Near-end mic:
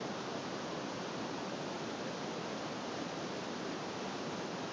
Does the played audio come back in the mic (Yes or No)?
No